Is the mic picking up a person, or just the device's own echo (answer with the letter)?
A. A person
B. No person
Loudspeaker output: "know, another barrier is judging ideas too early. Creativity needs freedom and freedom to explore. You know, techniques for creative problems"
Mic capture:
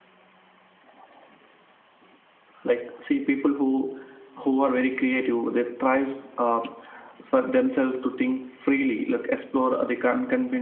A